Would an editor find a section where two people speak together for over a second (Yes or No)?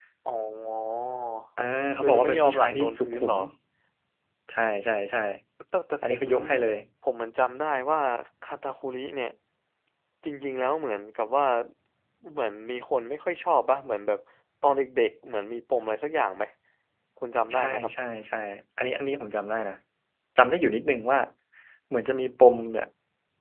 Yes